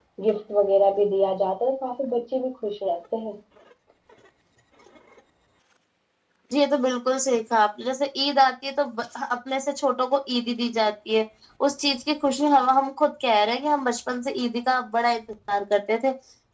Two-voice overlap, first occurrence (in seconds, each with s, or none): none